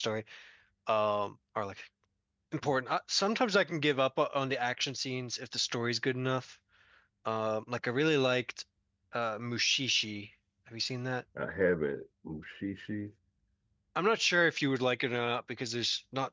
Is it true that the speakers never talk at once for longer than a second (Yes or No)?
Yes